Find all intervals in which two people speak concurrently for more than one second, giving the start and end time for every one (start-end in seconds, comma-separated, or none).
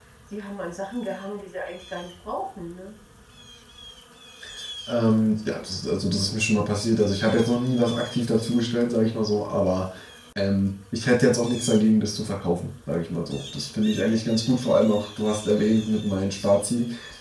none